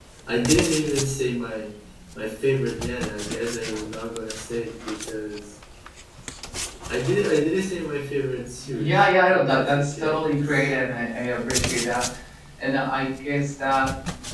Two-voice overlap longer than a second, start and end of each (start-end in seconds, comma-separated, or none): 8.7-10.7